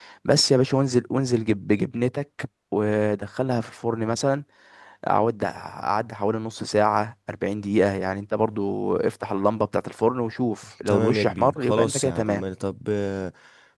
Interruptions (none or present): present